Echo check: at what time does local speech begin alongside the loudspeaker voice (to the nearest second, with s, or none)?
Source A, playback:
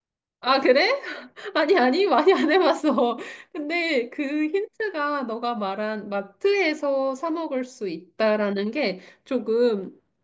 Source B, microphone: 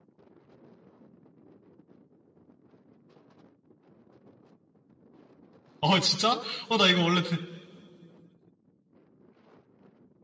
6 s